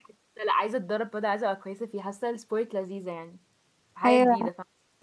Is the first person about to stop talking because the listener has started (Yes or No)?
Yes